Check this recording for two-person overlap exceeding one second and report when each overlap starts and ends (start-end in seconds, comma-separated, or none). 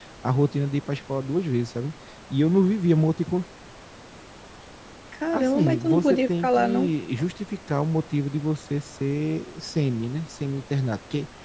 5.3-6.9